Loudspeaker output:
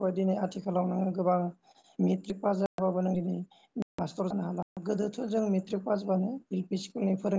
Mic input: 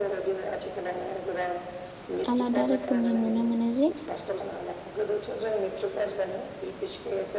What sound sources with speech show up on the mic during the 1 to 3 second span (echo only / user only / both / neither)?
both